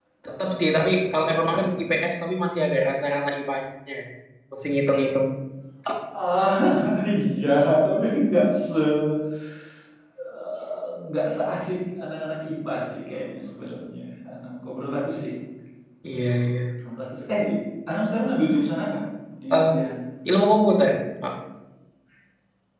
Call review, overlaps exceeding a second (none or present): present